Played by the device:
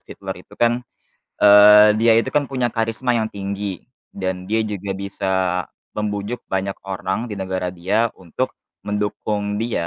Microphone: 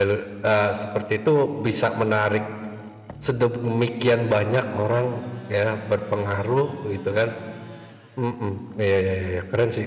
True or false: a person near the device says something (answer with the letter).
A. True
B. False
A